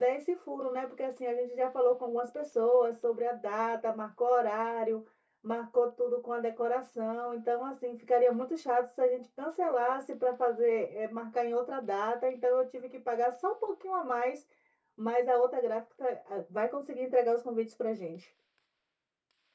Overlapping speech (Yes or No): No